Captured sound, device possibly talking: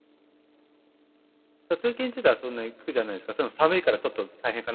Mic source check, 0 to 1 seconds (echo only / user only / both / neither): neither